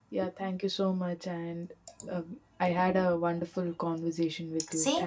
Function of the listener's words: taking over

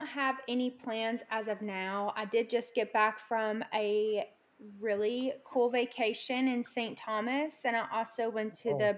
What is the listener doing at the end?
listening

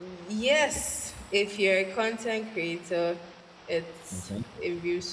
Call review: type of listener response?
listening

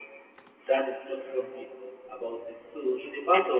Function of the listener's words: listening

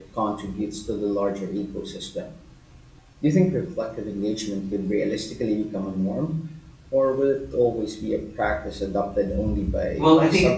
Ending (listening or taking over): taking over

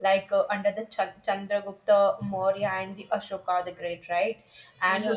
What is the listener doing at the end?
listening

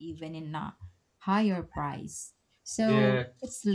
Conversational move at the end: listening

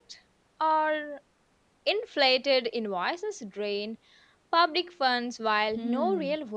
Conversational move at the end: taking over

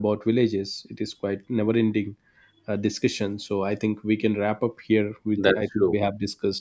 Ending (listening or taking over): listening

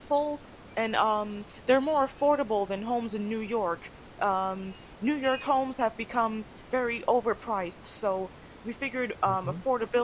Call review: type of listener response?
listening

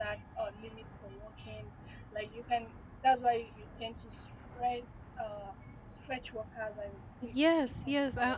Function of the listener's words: taking over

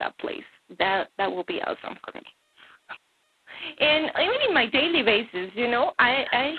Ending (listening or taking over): listening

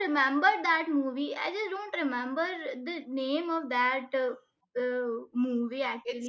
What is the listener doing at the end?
taking over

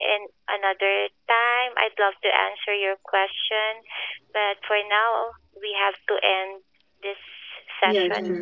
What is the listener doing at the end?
taking over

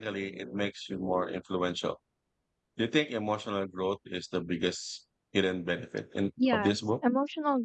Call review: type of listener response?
taking over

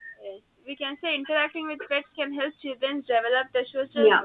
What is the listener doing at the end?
listening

